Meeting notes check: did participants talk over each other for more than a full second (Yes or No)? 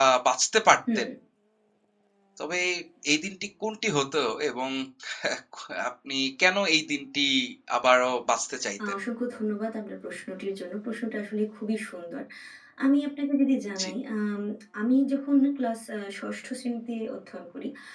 No